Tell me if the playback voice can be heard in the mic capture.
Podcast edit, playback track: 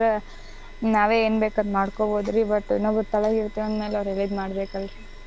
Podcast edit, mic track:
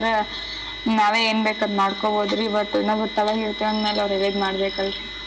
Yes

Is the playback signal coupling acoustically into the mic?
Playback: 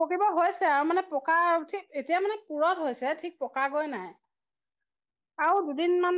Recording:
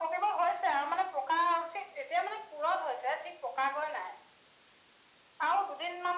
Yes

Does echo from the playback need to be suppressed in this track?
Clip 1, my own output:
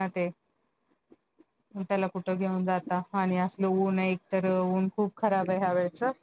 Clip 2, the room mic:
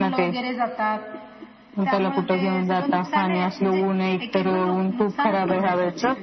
Yes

